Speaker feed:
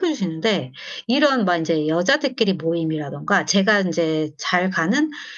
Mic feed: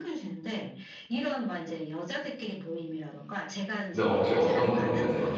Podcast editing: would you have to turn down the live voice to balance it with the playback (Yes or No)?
Yes